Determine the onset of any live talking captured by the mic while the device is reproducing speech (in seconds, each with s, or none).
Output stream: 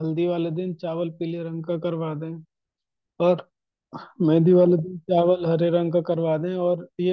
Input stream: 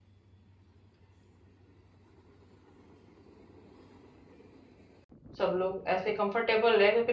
5.4 s